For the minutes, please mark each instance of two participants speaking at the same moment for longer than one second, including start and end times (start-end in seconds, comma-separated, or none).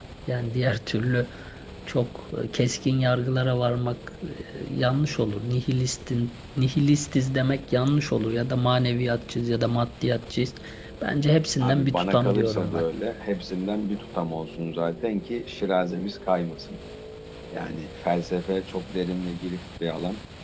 11.6-12.8